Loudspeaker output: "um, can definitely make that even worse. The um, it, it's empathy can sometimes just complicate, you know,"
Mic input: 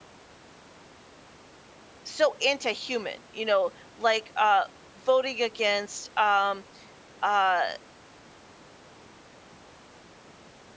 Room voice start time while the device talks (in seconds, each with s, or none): 2.0 s